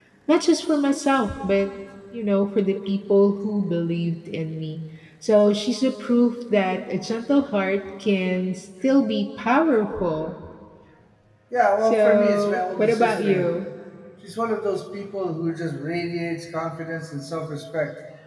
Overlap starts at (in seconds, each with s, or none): 11.8 s